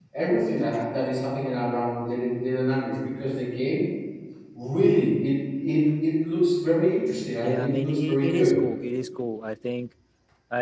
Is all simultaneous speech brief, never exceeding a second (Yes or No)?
No